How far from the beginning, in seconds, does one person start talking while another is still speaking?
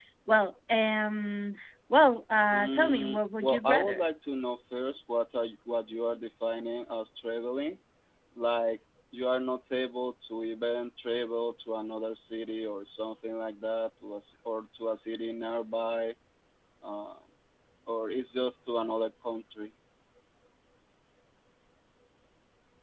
2.5 s

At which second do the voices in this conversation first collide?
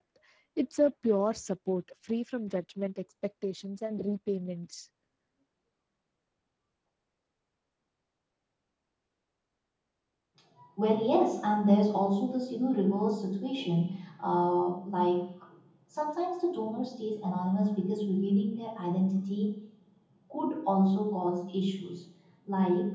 none

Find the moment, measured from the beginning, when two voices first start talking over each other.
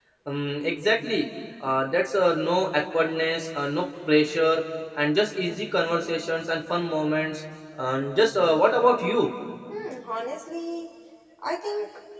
none

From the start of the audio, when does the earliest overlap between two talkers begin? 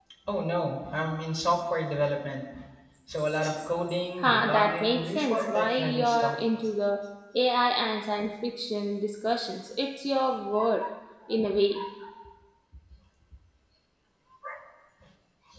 4.2 s

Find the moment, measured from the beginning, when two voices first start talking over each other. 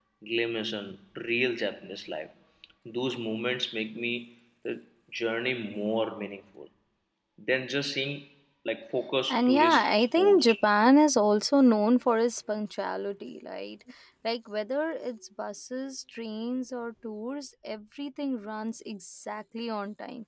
9.3 s

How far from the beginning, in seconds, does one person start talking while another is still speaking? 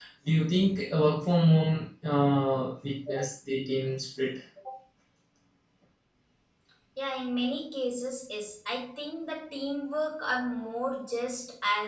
none

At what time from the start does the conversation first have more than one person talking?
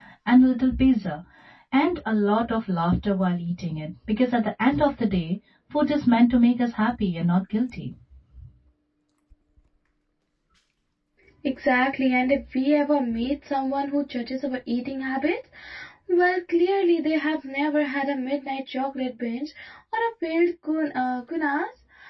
none

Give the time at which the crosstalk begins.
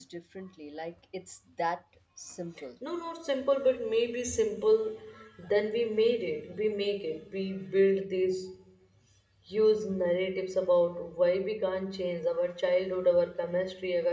none

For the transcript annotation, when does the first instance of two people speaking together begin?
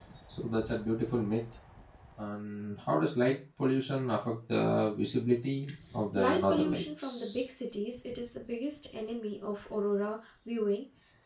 6.2 s

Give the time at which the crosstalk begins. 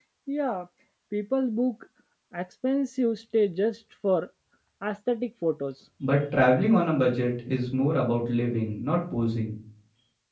none

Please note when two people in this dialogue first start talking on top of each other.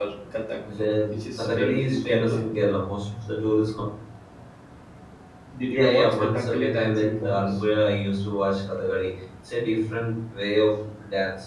1.1 s

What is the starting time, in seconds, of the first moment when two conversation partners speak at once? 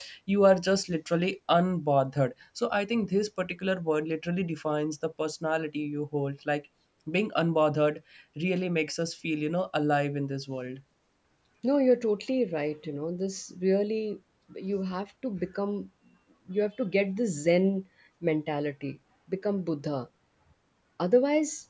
none

